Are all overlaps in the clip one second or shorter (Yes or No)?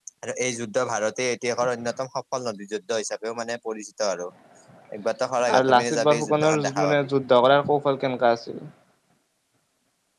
No